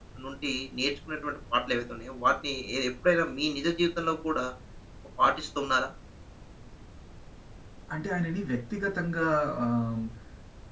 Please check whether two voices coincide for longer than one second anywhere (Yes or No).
No